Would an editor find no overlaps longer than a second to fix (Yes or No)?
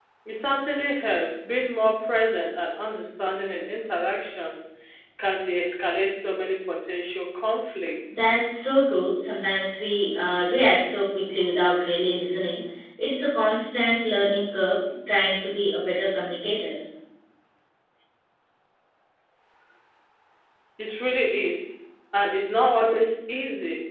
Yes